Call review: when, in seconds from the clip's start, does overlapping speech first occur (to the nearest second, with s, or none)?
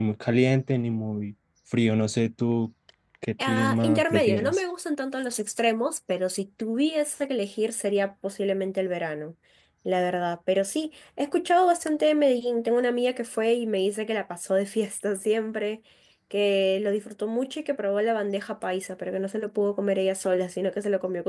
3 s